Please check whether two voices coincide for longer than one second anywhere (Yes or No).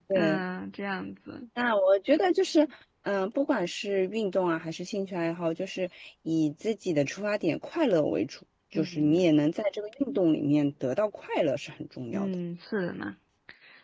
No